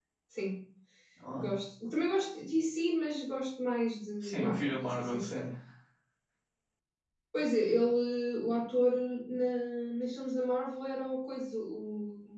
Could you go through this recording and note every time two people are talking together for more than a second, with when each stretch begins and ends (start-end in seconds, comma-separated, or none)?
4.2-5.5